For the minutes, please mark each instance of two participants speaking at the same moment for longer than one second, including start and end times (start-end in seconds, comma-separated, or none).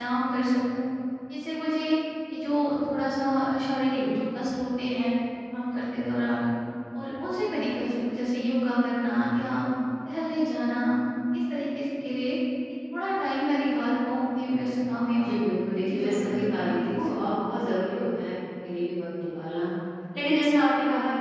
15.8-17.1